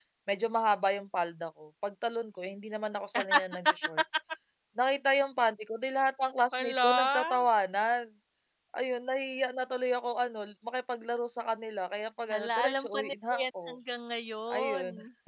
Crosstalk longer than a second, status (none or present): present